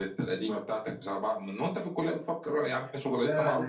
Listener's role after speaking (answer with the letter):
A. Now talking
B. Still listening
A